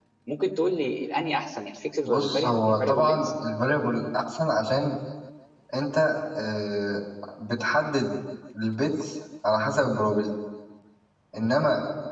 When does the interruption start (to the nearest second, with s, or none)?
2 s